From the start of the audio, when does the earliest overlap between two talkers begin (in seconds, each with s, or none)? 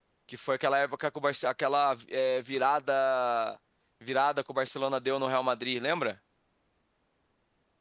none